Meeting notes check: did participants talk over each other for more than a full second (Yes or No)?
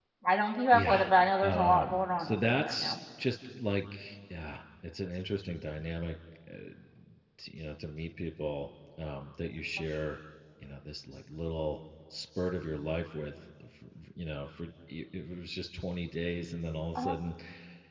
Yes